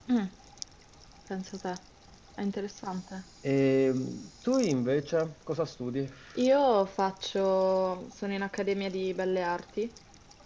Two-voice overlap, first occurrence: none

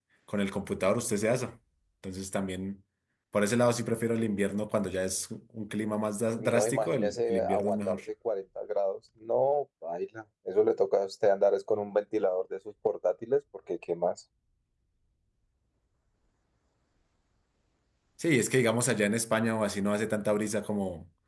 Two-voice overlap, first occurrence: 6.3 s

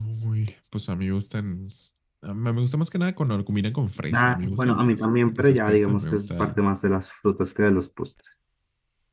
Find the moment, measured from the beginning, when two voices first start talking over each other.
4.1 s

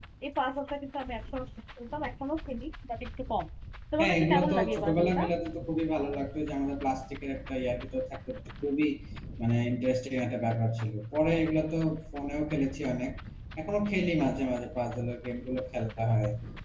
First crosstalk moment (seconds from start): 4.0 s

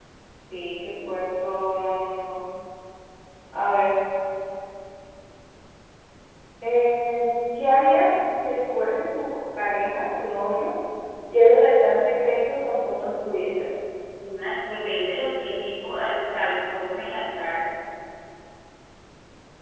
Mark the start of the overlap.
none

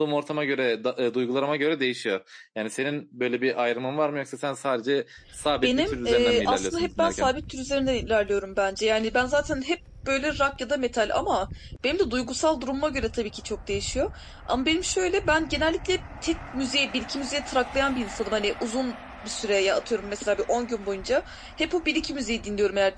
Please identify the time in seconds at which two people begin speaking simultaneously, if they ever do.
5.6 s

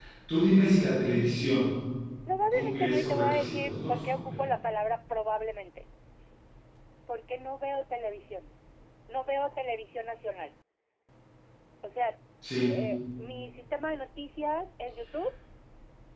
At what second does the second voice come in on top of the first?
2.5 s

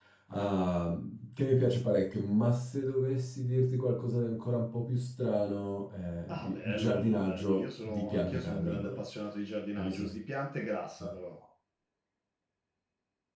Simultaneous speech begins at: 6.3 s

